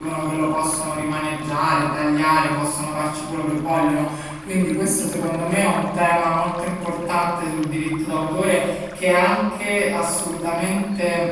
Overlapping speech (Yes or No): No